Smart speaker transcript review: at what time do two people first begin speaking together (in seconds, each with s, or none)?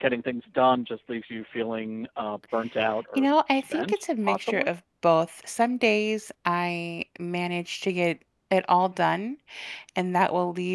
3.1 s